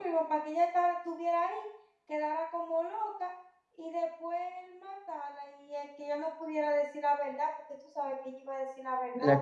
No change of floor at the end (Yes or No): No